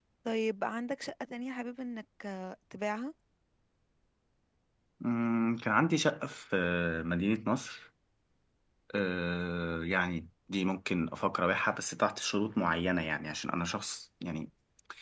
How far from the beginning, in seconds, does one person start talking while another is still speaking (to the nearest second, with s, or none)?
none